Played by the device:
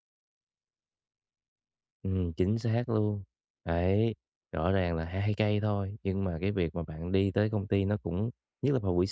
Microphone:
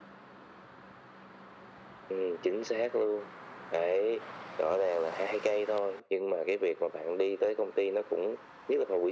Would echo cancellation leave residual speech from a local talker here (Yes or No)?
No